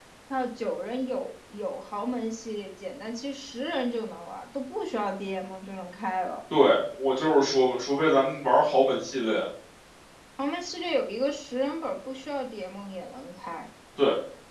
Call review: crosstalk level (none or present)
none